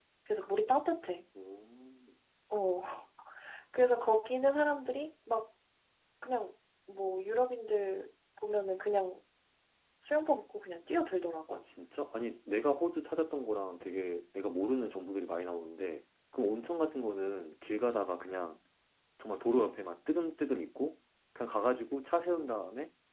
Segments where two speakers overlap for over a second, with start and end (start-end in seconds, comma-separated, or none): none